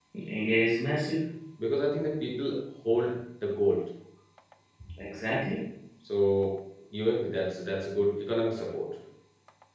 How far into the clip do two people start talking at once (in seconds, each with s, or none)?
none